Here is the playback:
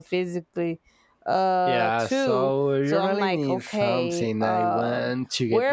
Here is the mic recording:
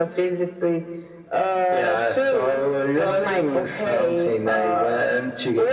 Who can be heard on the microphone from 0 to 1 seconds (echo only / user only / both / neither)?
echo only